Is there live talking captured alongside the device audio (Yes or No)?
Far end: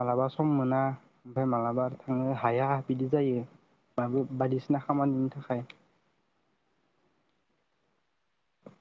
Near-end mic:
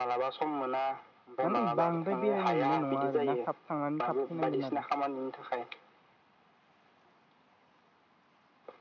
Yes